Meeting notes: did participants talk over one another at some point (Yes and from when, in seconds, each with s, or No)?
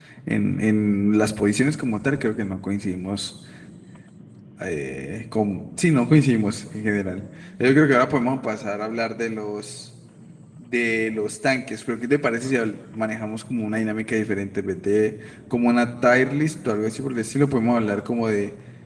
No